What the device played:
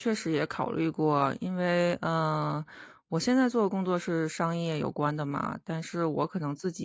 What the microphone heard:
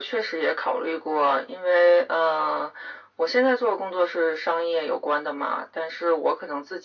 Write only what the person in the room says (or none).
none